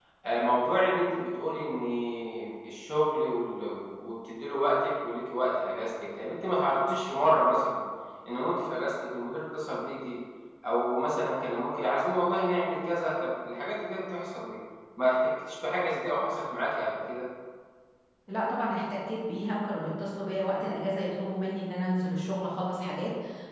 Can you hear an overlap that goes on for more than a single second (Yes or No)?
No